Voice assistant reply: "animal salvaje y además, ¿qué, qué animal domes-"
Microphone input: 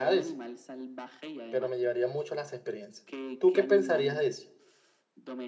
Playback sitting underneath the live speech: Yes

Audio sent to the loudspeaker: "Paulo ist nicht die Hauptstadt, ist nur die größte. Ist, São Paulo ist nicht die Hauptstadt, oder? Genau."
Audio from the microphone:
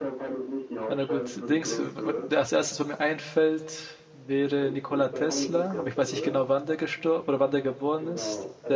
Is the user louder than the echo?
Yes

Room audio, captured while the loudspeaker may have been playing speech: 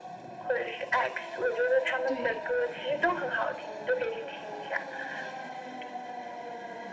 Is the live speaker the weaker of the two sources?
Yes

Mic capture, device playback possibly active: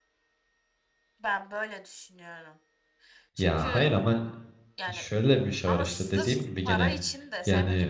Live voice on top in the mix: Yes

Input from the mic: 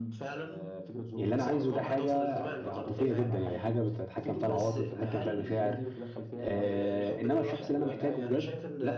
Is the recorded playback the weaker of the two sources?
Yes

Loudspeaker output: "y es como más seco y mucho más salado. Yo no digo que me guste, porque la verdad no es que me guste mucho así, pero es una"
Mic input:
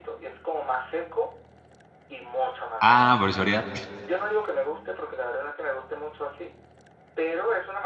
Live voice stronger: Yes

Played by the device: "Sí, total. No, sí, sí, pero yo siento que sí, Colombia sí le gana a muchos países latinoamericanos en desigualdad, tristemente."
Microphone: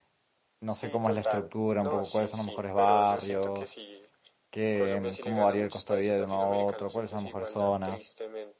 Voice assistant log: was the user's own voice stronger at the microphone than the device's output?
Yes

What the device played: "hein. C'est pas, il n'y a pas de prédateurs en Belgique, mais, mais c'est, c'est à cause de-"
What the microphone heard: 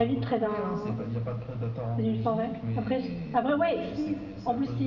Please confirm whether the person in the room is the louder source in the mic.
Yes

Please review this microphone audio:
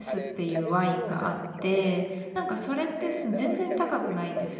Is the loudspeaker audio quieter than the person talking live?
Yes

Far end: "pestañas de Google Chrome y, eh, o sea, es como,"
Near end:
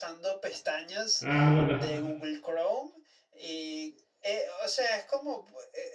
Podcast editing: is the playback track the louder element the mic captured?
No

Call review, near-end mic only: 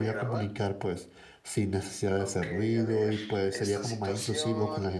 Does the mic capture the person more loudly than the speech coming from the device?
Yes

